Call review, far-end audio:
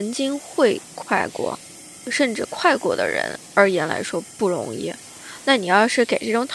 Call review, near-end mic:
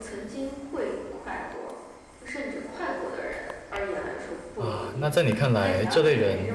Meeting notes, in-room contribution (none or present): present